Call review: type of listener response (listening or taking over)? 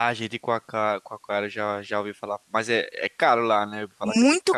taking over